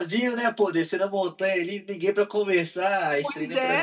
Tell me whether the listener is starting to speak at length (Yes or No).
Yes